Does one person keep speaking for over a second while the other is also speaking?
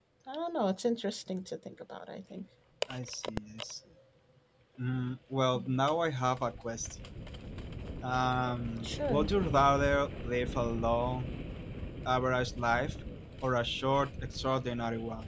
No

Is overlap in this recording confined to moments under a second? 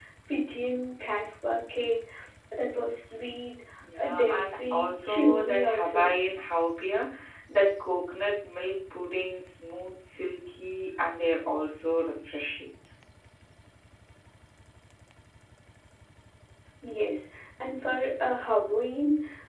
No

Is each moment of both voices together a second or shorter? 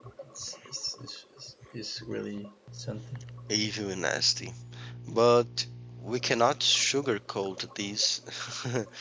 Yes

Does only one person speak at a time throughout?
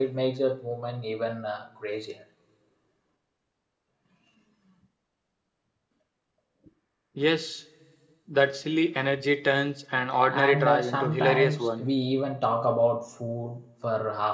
No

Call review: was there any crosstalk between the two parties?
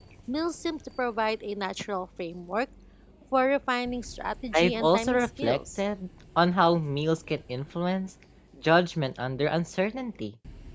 Yes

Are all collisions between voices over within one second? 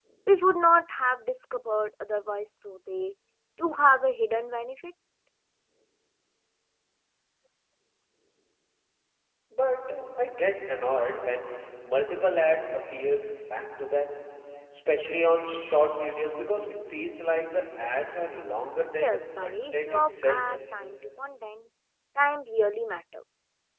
No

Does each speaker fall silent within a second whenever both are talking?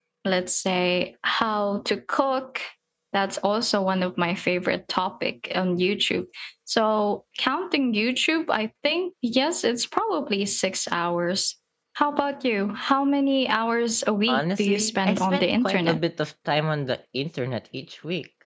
No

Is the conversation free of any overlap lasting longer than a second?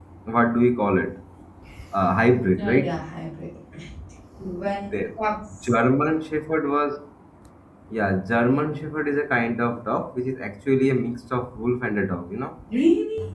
Yes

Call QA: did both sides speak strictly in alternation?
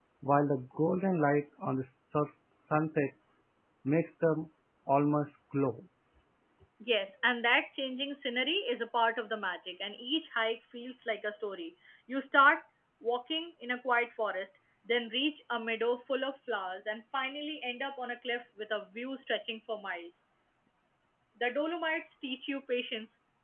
Yes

